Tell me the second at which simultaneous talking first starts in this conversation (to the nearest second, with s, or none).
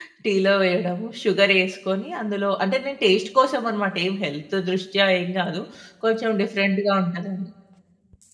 none